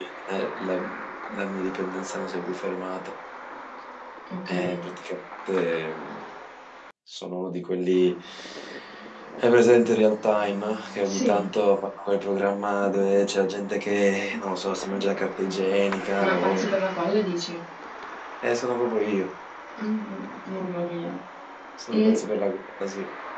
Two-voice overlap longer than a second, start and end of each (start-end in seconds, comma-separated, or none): none